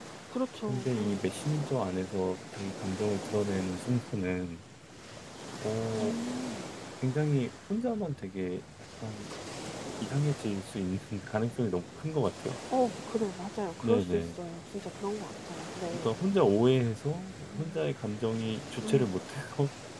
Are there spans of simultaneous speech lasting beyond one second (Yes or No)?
No